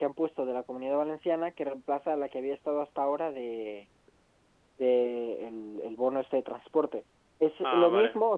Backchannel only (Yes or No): Yes